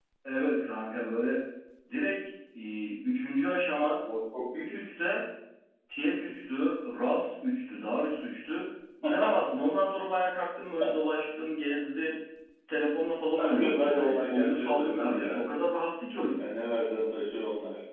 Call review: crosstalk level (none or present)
present